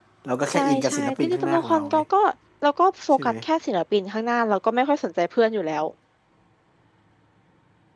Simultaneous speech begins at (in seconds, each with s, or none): 0.5 s